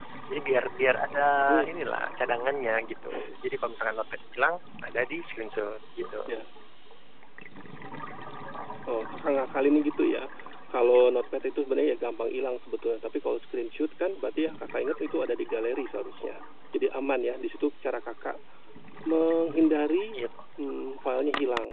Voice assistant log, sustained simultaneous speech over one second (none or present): none